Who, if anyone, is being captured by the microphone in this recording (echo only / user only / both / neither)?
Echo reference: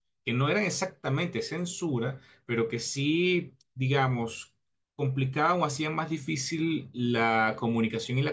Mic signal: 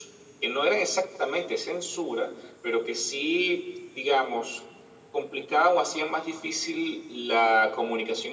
echo only